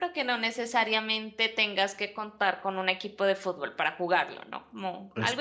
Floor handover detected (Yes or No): Yes